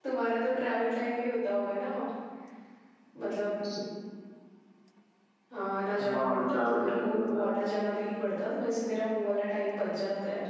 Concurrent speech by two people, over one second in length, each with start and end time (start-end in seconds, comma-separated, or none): 6.0-7.6